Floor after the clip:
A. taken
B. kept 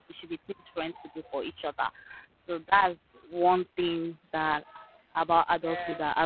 B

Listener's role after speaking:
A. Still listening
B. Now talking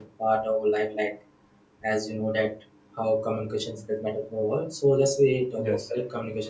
A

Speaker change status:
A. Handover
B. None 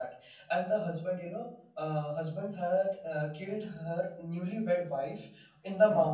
B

